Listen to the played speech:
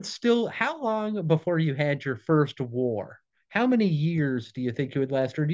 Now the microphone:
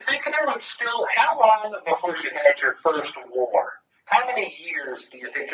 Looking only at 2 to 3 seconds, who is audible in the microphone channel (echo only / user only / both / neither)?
echo only